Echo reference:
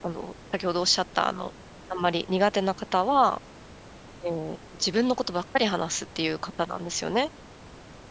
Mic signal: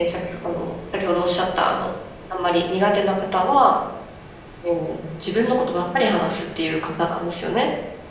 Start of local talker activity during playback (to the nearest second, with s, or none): none